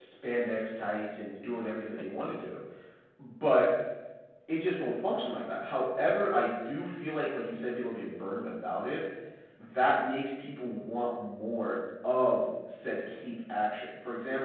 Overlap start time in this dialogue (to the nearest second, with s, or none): none